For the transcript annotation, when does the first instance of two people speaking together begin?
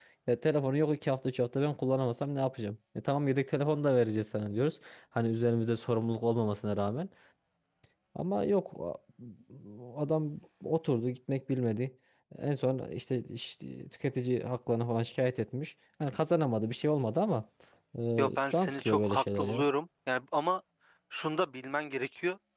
18.2 s

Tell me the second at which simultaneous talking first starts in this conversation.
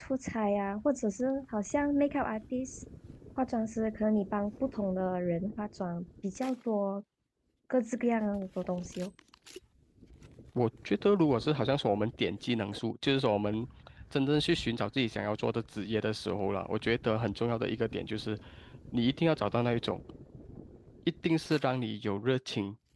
none

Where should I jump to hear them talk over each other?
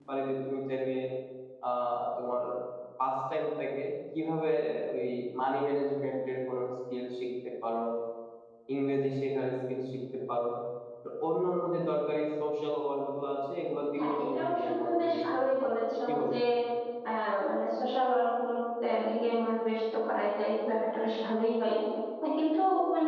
13.9 s

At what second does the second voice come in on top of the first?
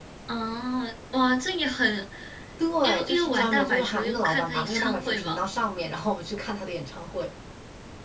2.8 s

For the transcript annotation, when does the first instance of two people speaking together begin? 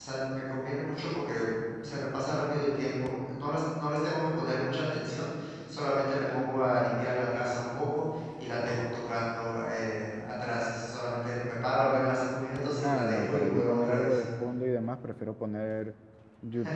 12.8 s

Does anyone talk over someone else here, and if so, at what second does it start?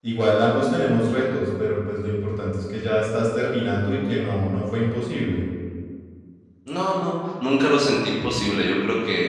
none

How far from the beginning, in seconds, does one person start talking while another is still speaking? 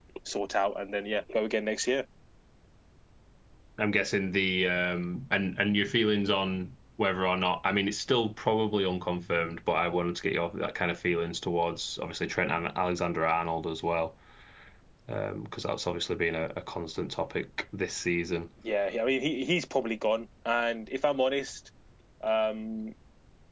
none

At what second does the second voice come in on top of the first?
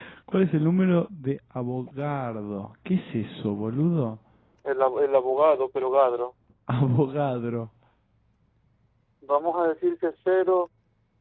none

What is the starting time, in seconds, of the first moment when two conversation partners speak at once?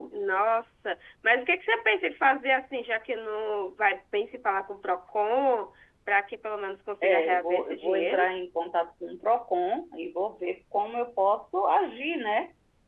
7.0 s

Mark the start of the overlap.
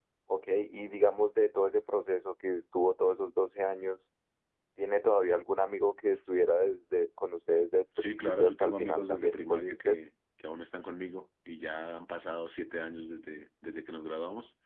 8.0 s

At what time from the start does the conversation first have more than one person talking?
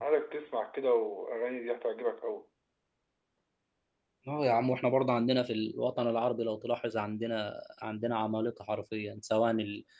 none

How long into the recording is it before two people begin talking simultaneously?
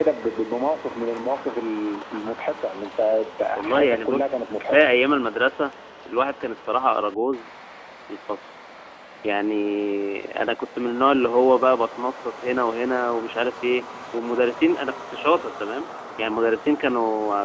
3.6 s

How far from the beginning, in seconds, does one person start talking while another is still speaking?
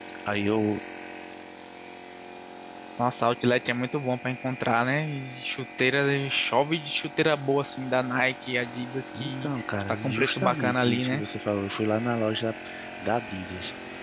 9.1 s

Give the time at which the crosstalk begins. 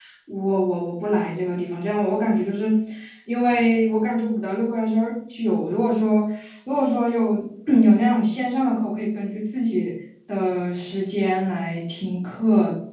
none

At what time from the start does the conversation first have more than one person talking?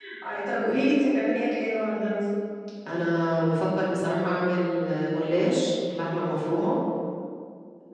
none

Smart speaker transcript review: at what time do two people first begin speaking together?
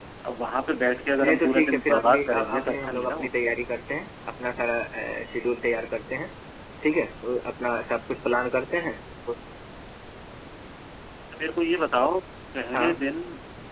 1.2 s

